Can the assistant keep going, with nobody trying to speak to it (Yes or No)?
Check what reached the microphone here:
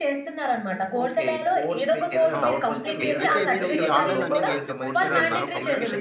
No